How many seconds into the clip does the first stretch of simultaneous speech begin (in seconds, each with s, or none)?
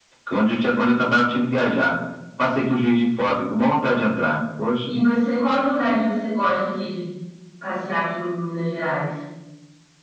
none